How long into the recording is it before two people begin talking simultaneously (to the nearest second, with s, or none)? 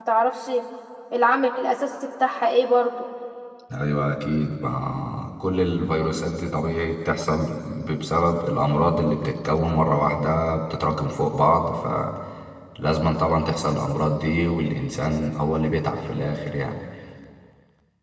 none